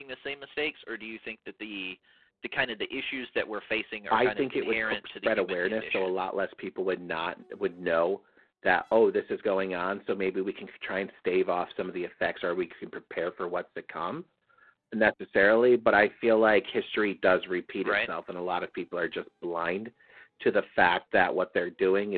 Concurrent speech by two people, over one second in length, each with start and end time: 4.1-6.1

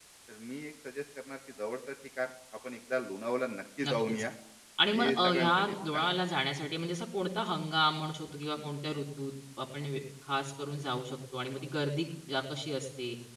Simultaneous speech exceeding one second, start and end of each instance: 4.9-6.2

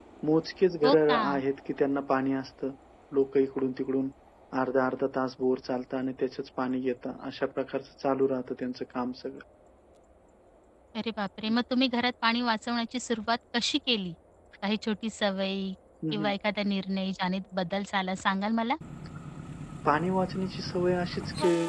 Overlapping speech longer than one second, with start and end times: none

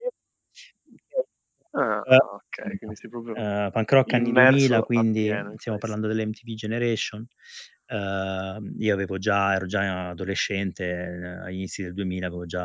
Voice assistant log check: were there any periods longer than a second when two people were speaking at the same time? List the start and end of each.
4.1-5.8

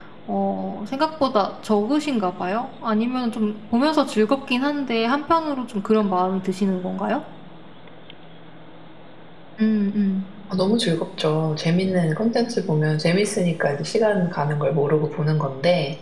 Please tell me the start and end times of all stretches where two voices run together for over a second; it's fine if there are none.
none

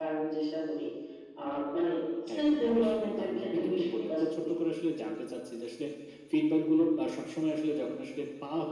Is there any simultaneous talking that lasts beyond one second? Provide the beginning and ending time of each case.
2.4-4.5

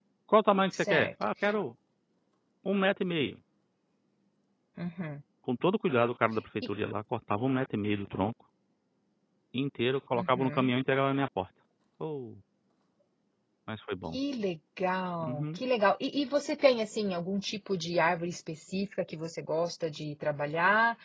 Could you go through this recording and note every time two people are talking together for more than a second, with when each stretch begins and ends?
none

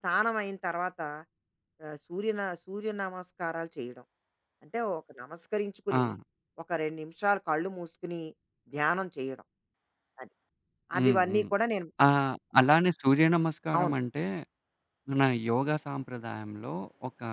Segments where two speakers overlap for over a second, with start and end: none

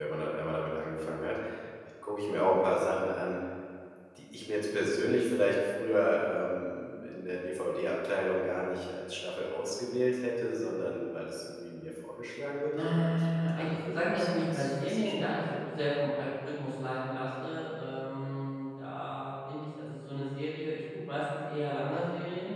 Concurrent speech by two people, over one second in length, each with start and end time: 12.8-15.6

